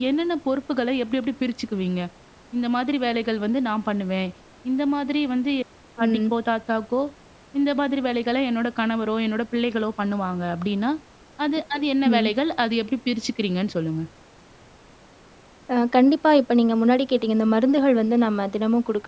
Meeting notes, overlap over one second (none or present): none